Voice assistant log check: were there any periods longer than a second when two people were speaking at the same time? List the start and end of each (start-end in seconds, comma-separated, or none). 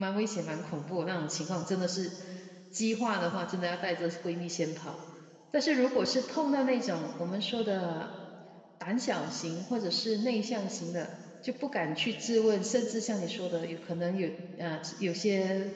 none